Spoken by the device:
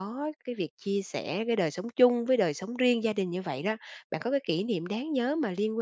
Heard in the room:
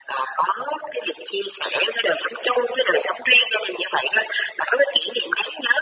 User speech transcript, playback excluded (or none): none